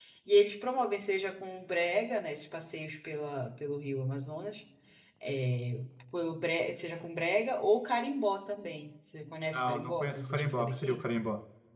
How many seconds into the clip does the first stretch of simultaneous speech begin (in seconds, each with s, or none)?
9.5 s